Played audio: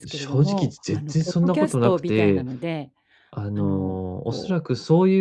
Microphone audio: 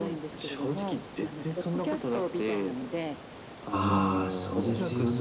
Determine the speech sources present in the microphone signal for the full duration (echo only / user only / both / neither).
both